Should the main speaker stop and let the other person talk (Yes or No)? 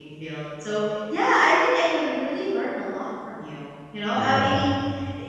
No